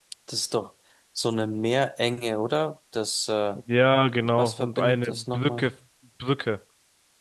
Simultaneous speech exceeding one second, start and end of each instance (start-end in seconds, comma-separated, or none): 4.4-5.7